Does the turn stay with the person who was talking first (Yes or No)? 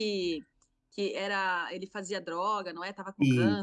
No